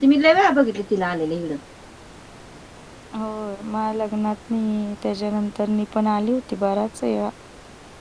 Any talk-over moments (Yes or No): No